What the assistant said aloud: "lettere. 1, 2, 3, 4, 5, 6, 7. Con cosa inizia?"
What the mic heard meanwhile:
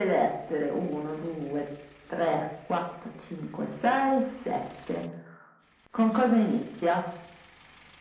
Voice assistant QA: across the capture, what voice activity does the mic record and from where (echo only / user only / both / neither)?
echo only